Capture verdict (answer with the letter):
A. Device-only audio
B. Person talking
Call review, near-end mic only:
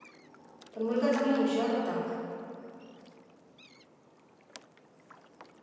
B